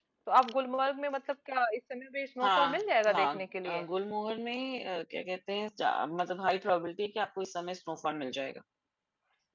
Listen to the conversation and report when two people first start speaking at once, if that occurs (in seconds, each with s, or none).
2.4 s